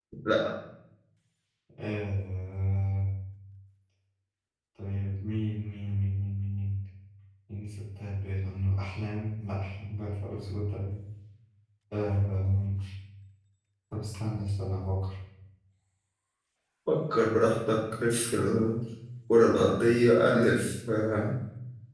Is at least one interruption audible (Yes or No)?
No